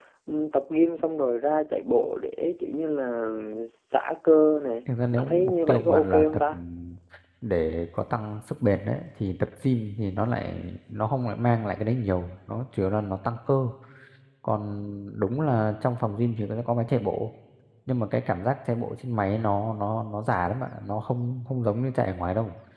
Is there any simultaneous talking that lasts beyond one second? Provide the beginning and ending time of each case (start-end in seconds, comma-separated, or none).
5.1-6.6